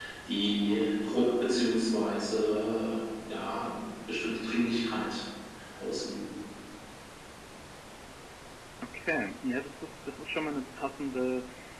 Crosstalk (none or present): none